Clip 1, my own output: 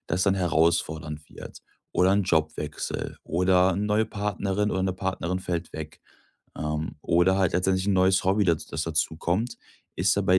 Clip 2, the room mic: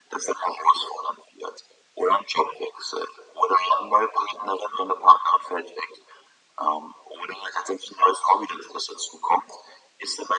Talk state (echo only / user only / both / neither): echo only